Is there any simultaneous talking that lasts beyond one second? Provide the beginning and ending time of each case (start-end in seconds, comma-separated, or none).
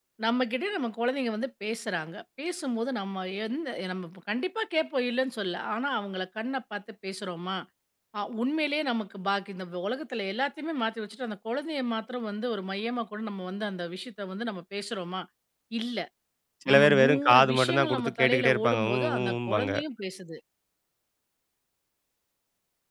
16.7-19.7